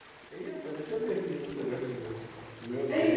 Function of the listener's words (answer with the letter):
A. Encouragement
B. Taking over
B